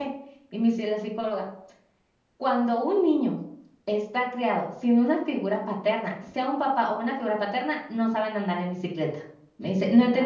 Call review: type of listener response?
listening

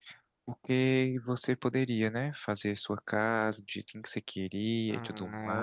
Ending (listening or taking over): taking over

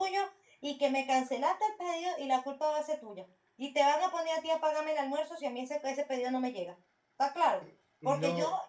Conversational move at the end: listening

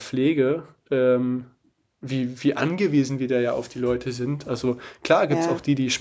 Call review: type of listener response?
listening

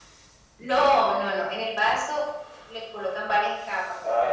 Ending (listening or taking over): taking over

